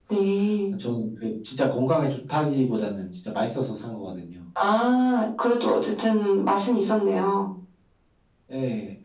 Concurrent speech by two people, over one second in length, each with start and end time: none

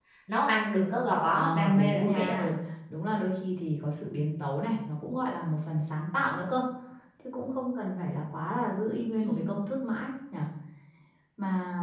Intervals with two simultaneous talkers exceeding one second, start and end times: 1.3-2.5

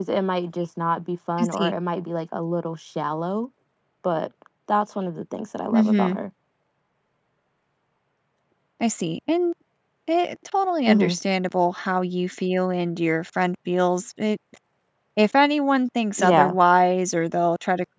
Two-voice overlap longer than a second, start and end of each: none

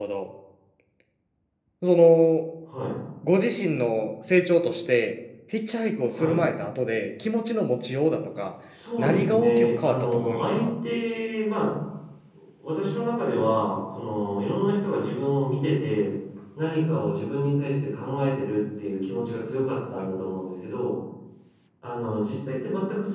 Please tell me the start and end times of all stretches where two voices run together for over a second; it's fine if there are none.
9.0-10.7

